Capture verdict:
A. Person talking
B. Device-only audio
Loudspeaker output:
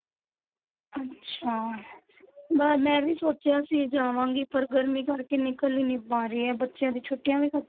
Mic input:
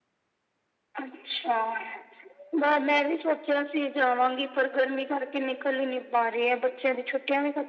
B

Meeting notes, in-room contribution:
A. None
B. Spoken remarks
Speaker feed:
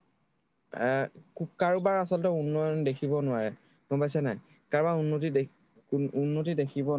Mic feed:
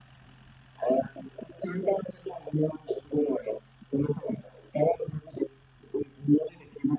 A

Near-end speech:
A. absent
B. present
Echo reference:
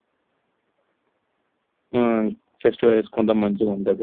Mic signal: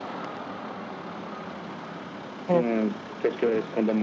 B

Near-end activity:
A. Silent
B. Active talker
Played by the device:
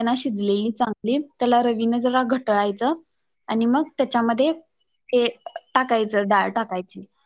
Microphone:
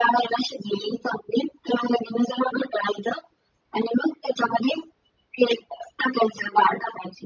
A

